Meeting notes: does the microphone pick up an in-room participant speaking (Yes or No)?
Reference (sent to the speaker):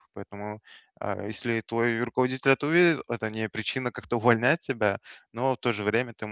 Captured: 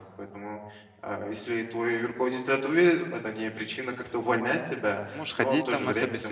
Yes